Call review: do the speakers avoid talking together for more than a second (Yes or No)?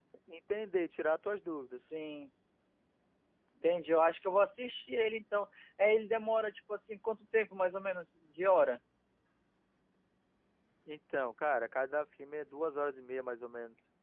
Yes